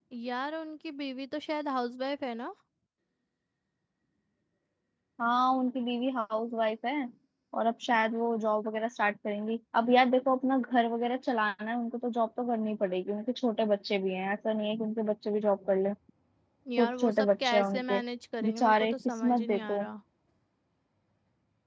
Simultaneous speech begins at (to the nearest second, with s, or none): 17 s